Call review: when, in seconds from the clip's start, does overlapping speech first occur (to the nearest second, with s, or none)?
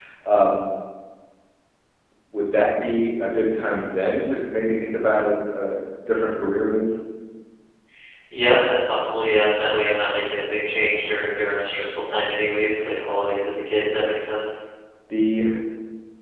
none